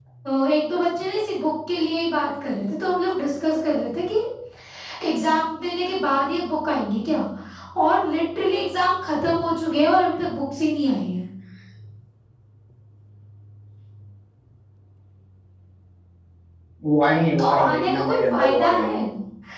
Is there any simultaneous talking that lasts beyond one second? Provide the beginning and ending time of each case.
17.4-18.9

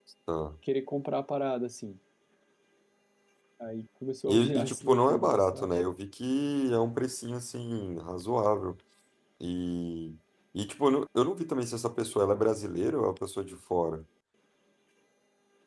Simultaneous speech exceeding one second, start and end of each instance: 4.3-5.8

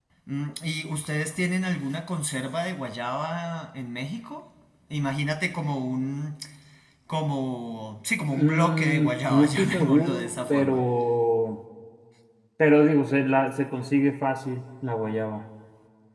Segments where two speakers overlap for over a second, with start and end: 8.3-10.8

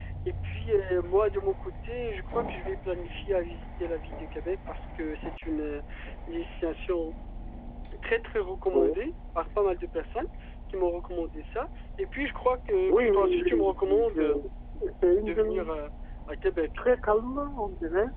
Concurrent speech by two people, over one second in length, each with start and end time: 12.9-14.4

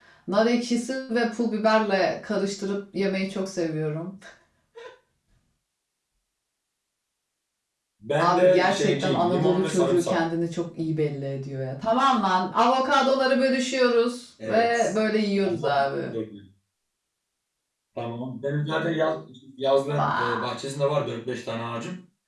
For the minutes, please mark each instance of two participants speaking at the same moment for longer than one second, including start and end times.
8.2-10.2

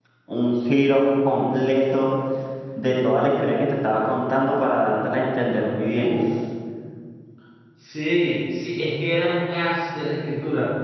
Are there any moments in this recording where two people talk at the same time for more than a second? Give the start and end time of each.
none

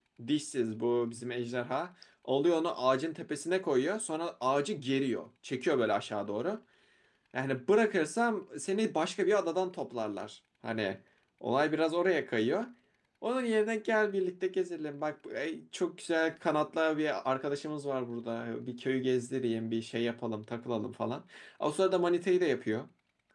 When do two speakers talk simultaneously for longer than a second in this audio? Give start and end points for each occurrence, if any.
none

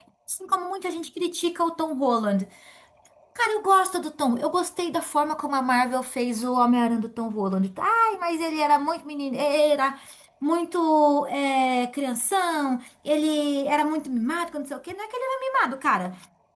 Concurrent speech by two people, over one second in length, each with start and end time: none

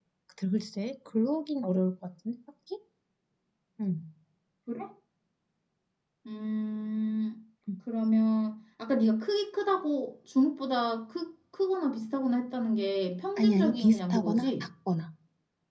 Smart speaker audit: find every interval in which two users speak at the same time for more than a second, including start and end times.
13.4-14.6

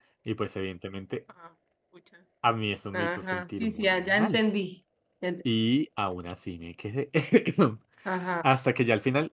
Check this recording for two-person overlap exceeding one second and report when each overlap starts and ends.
2.9-4.4

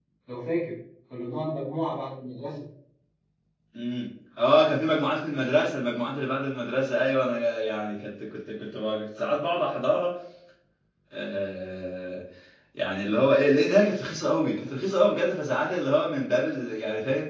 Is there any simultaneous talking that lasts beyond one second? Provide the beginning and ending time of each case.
none

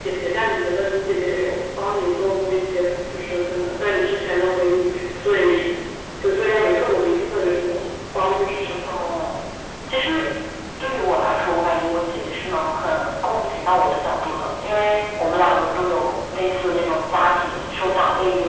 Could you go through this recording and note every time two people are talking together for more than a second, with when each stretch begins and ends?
none

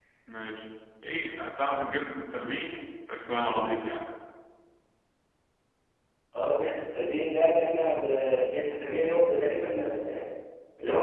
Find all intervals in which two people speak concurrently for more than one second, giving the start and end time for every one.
none

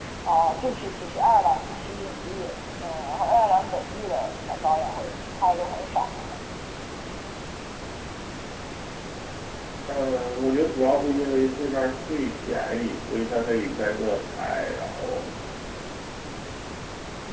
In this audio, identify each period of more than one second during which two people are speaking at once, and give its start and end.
none

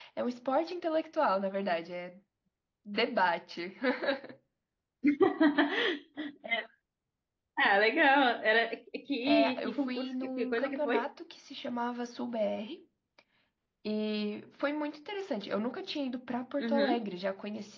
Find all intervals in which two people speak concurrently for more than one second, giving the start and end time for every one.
9.3-11.0

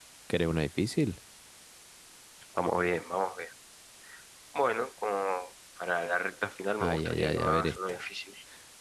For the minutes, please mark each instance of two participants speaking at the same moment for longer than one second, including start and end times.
6.8-8.0

